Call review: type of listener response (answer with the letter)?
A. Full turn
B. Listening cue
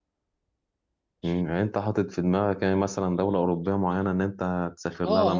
A